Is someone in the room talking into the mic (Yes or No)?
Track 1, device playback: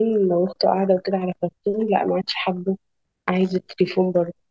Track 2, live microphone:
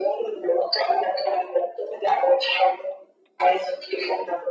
No